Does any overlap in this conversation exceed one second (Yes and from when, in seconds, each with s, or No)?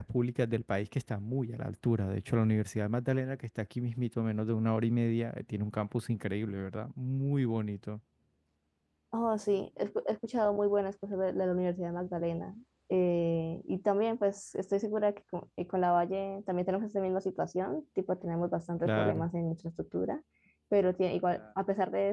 No